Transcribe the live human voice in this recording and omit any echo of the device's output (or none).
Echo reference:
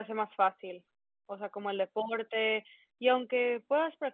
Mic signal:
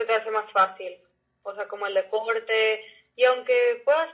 none